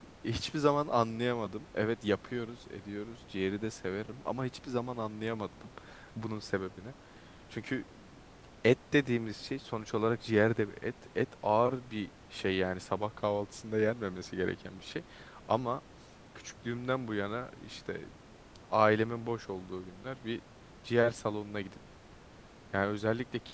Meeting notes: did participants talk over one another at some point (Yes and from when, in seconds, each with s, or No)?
No